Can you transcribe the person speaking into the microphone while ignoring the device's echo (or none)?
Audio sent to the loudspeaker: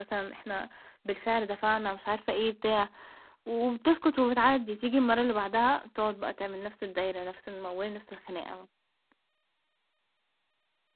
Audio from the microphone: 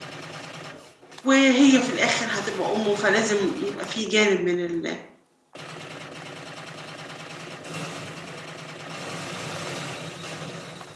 وهي في الآخر هتبقى أمه، فلازم يبقى في جانب من ال